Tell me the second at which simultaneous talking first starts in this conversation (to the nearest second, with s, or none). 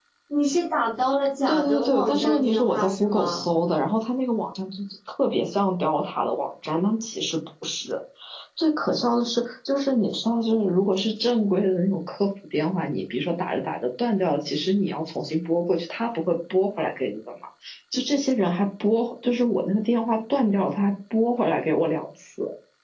1 s